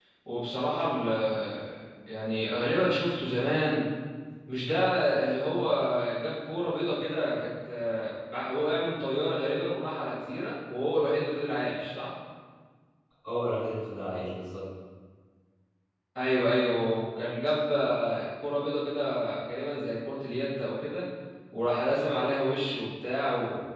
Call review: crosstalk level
none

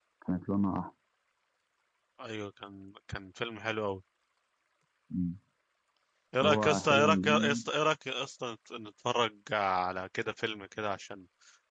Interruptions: present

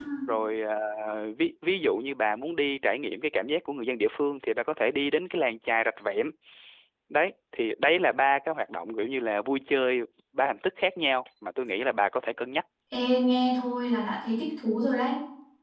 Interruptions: none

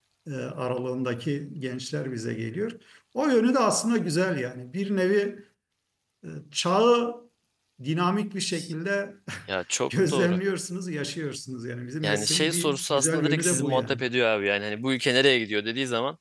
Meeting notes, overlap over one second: present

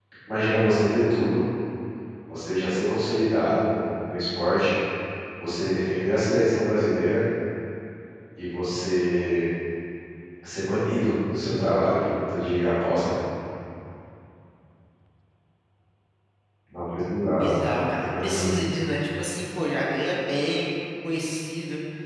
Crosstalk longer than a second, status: none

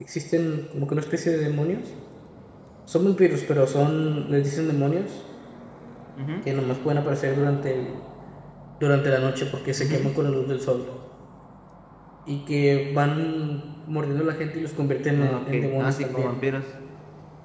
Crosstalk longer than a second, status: present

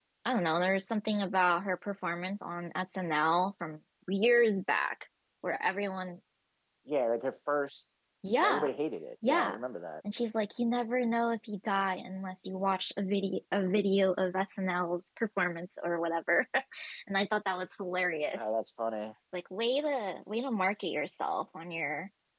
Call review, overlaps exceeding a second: none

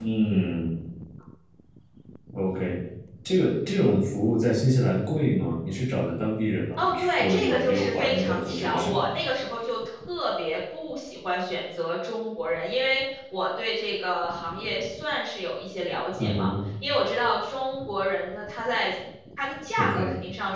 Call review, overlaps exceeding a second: present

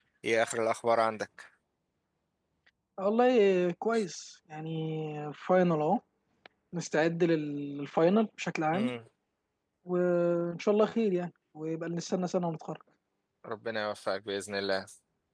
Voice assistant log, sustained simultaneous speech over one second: none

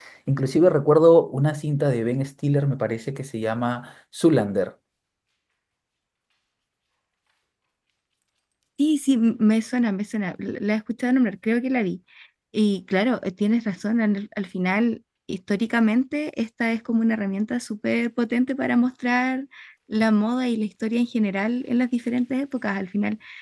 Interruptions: none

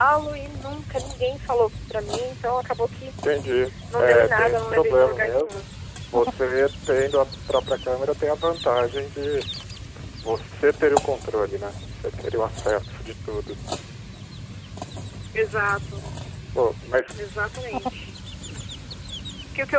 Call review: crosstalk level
present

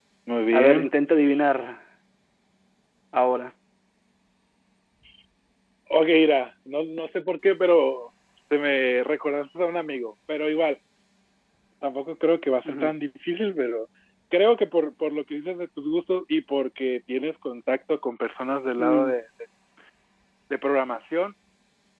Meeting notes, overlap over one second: none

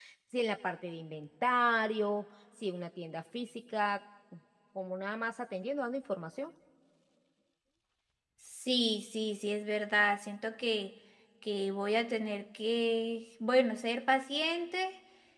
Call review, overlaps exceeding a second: none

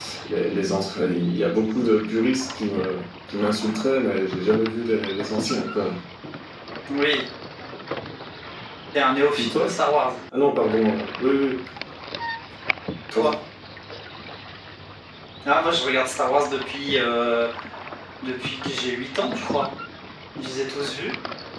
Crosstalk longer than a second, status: none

